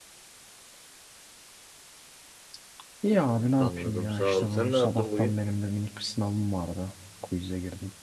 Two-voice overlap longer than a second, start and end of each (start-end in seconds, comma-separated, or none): 3.6-5.4